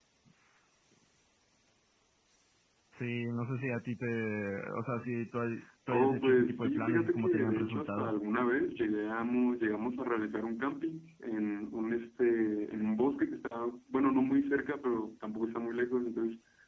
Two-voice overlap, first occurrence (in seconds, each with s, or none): 5.9 s